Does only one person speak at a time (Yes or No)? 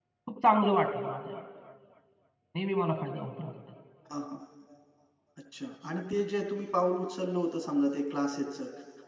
Yes